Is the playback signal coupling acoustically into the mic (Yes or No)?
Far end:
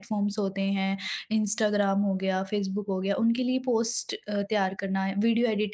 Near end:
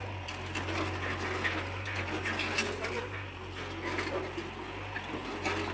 No